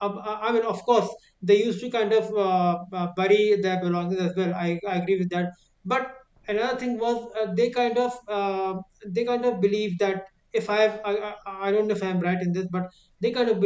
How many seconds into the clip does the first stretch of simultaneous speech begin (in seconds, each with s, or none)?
none